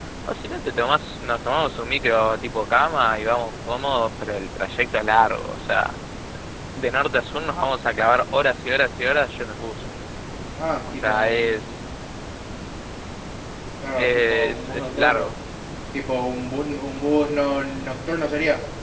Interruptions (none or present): present